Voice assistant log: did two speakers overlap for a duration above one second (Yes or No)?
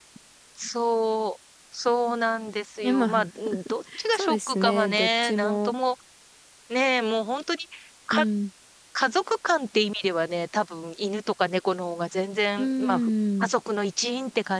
Yes